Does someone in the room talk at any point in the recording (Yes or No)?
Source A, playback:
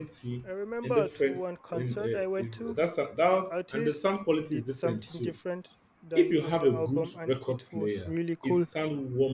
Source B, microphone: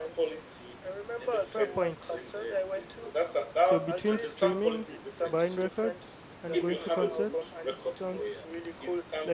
Yes